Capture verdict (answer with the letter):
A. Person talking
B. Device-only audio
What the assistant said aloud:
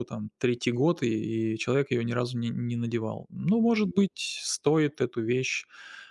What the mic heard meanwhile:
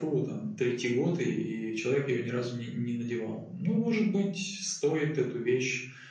B